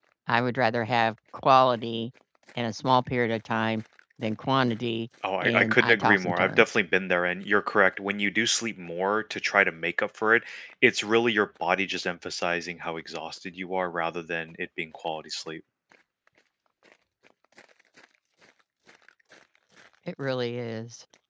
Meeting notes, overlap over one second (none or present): present